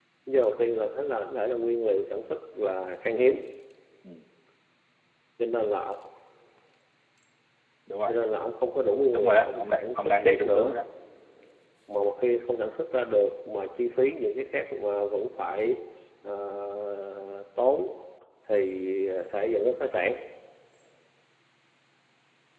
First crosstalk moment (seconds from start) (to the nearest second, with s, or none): 9 s